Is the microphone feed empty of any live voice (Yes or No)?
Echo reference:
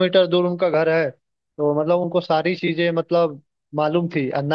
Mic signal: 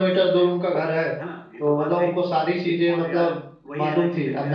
No